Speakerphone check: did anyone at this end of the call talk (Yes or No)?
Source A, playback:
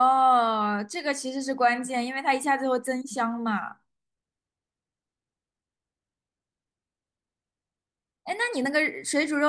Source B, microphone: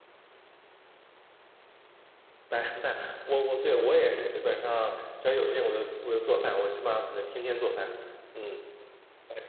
Yes